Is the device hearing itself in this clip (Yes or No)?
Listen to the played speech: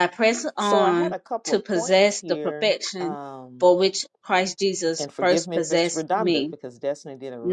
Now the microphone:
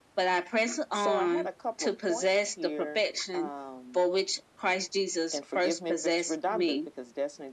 Yes